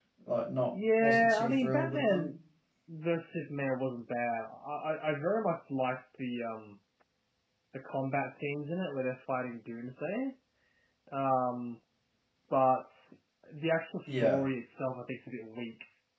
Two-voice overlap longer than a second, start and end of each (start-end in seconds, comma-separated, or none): 1.0-2.3